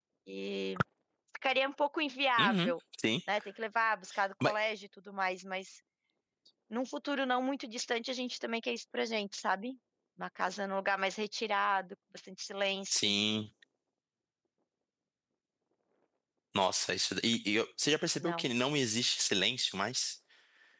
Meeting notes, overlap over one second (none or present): none